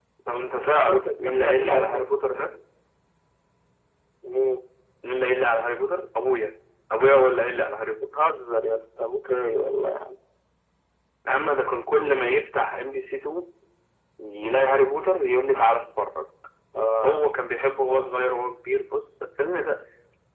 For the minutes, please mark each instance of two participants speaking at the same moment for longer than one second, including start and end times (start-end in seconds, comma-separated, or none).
0.8-2.0